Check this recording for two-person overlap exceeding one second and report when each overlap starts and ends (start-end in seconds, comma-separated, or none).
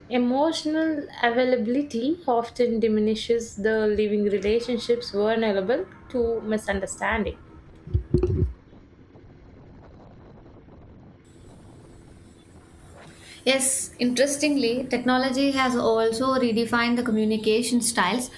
none